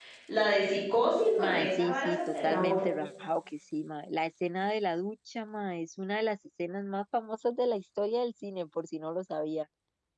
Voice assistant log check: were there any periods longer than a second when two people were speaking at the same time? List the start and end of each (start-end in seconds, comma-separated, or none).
1.4-2.9